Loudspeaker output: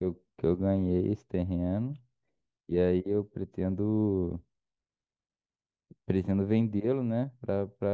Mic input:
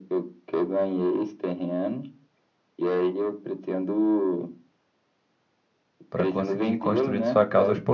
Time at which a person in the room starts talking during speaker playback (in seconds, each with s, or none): 6.1 s